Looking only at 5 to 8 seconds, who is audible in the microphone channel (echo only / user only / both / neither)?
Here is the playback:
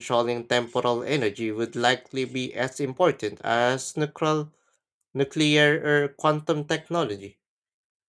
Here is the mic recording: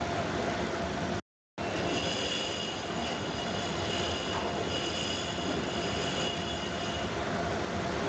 neither